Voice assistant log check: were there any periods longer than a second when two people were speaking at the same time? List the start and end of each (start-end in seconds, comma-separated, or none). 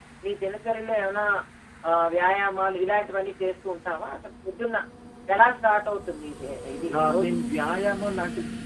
none